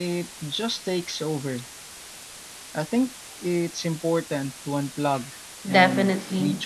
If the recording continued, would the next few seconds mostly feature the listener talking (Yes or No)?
Yes